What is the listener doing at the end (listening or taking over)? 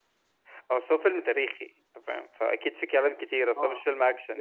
taking over